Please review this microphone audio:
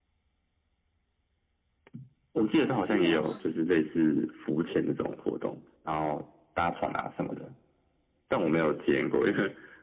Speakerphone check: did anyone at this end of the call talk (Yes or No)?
Yes